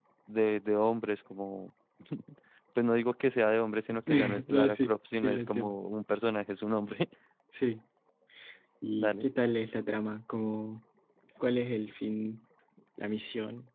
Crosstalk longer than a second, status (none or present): present